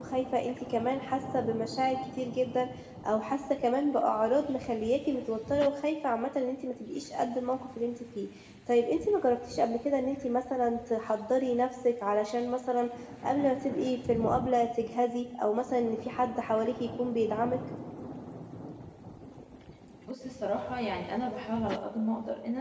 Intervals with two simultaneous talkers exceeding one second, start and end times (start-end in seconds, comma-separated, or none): none